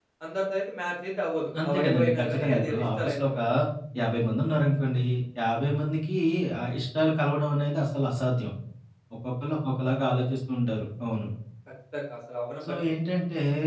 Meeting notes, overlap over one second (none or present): present